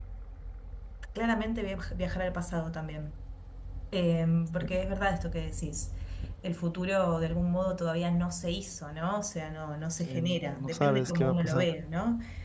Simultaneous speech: Yes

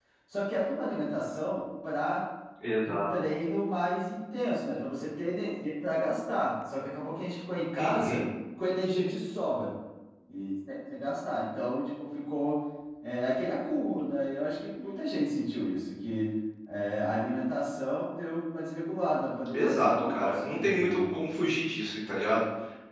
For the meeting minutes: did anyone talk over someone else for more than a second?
Yes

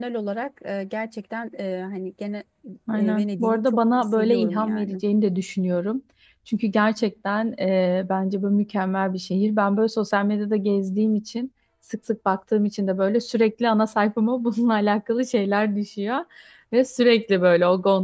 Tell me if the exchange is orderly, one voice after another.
No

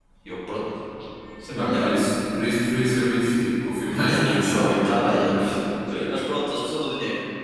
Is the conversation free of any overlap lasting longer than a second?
No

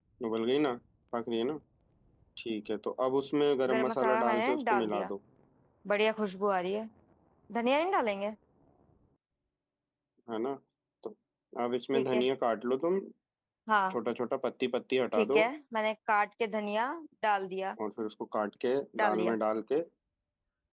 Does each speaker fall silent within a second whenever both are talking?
No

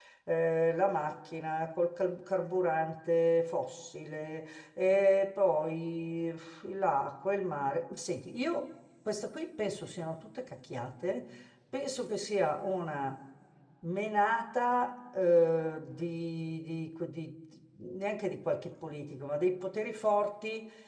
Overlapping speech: No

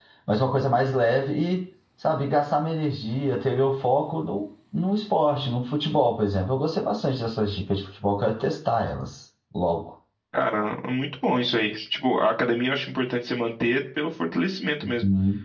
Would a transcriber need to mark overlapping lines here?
No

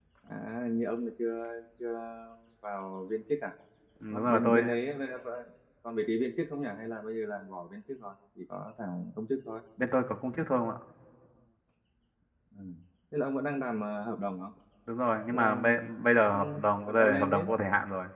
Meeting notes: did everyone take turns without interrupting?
No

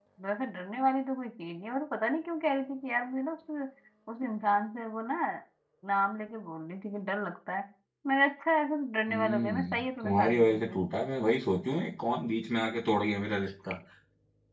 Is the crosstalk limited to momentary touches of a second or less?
No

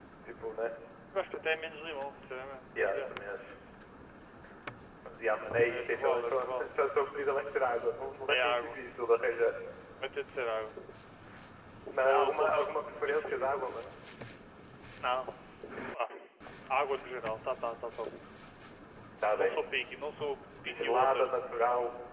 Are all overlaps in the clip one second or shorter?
No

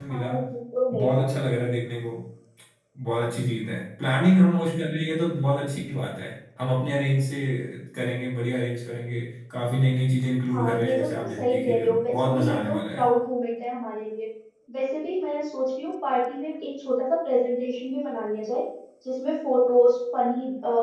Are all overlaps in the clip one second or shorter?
No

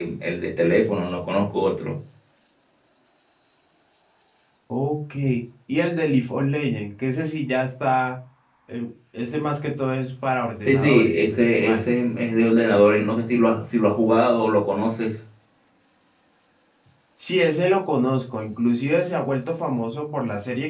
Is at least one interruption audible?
Yes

